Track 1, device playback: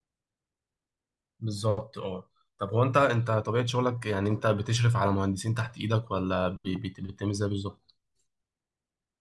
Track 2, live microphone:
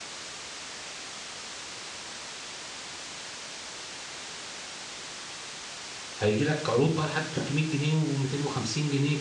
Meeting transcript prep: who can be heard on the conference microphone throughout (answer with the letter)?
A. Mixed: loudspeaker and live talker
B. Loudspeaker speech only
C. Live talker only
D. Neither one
C